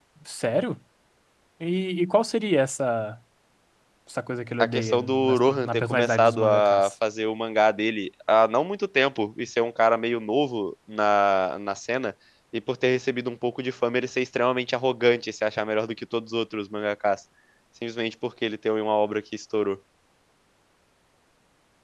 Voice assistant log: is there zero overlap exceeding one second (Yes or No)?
No